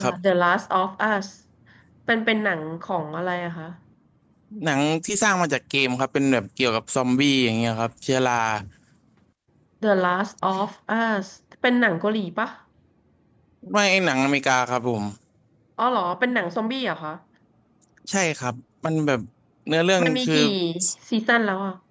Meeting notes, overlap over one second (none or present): none